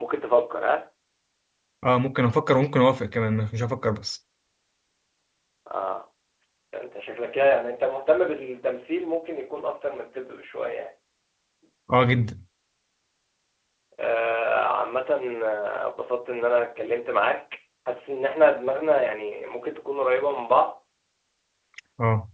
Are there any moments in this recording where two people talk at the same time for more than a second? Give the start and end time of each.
none

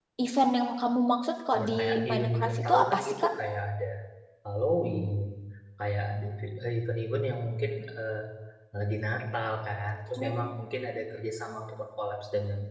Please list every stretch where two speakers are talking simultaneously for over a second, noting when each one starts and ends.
1.6-3.3

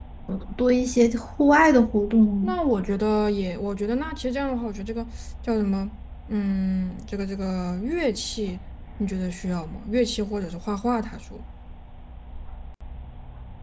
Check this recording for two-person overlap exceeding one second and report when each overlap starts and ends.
none

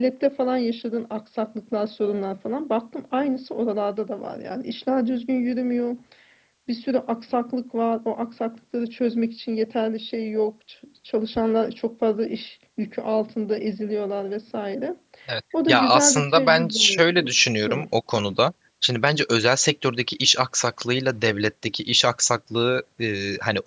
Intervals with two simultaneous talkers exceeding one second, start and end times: 15.7-17.3

